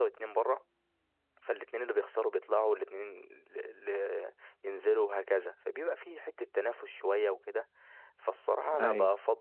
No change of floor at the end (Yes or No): Yes